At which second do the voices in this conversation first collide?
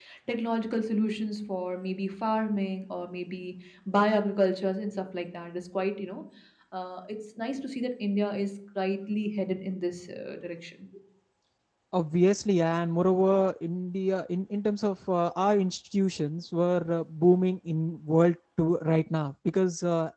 none

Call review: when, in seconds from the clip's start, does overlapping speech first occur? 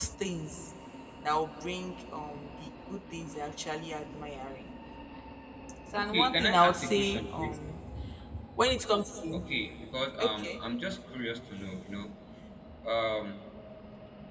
6.0 s

